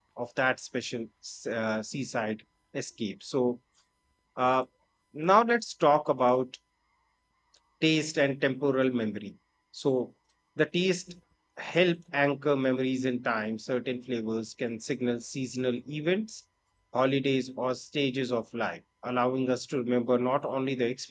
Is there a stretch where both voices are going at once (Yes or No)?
No